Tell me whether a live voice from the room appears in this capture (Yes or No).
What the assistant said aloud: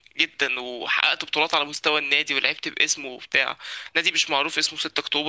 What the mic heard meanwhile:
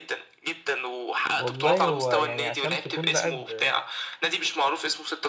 Yes